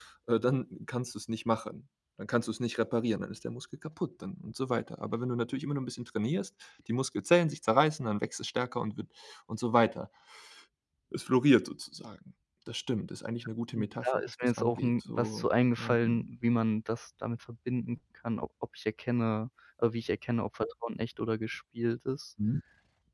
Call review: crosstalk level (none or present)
present